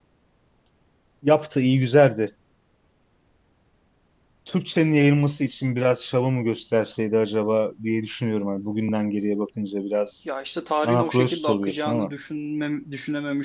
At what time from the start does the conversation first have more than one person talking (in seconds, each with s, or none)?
10.8 s